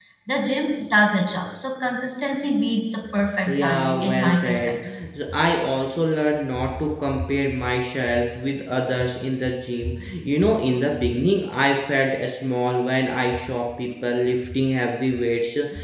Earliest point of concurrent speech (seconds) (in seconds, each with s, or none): 3.5 s